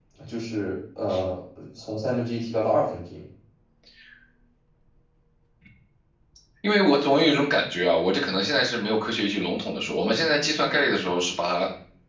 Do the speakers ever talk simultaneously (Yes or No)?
No